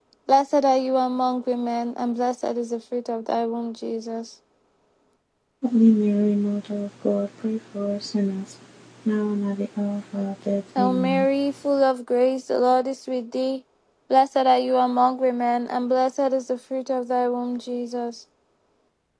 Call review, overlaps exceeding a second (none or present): none